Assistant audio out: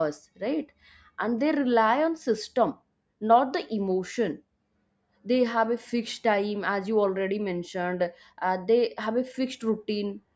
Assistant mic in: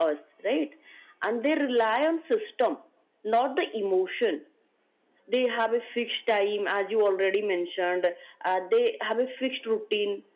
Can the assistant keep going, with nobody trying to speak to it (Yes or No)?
Yes